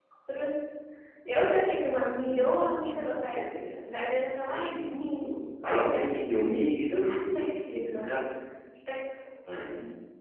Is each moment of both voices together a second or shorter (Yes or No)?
No